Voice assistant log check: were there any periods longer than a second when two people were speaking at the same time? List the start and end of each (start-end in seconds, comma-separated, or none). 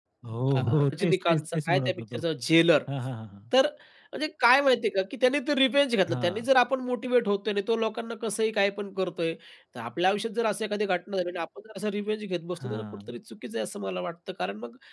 0.6-2.2